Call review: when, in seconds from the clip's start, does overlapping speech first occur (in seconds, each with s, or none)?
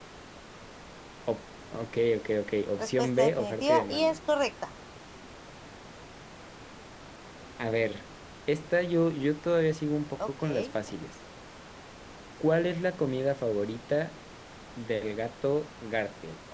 2.8 s